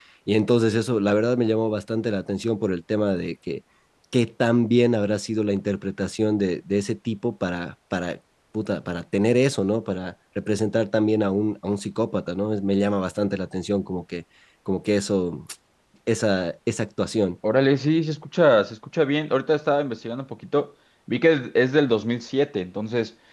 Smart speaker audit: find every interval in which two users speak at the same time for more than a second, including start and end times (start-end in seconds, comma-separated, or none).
none